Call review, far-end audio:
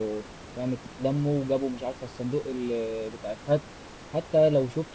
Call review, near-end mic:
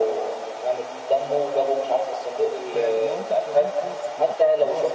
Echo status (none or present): present